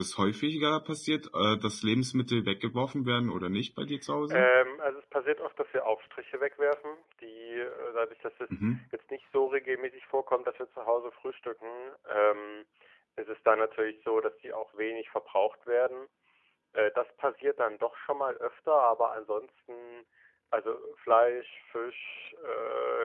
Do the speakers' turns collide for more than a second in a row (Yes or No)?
No